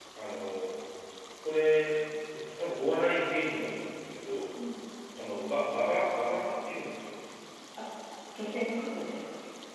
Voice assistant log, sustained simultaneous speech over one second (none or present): none